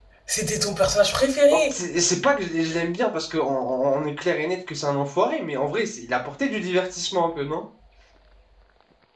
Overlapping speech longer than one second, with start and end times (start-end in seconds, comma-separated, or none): none